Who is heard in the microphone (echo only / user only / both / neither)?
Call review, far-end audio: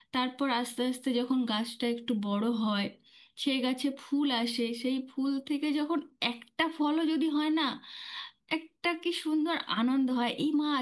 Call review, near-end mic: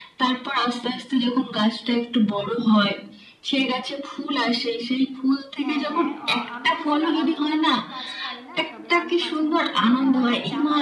both